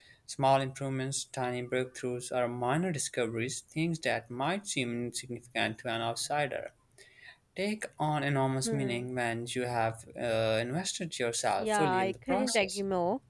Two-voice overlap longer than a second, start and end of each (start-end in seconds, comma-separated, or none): 11.6-12.8